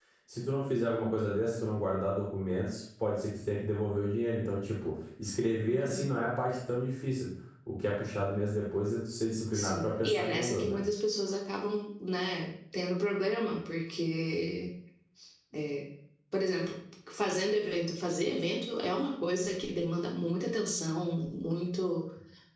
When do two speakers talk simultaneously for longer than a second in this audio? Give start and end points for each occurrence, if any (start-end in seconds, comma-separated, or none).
9.5-10.8